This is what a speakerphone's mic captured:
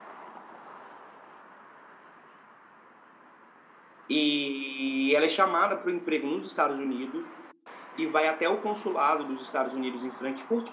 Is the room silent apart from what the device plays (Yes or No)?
No